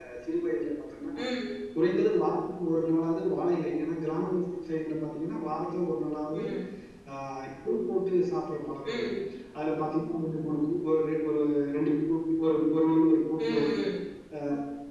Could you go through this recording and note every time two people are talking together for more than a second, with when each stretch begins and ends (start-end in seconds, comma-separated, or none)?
none